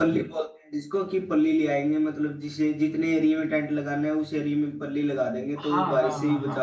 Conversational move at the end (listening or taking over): taking over